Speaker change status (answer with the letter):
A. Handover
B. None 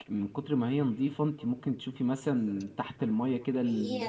A